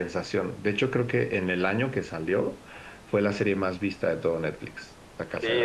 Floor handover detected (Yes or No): Yes